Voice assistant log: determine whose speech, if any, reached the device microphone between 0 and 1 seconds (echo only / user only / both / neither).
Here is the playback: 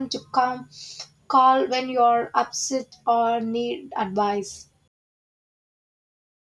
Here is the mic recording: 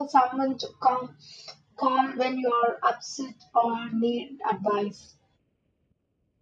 echo only